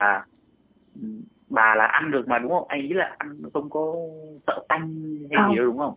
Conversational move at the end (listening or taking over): taking over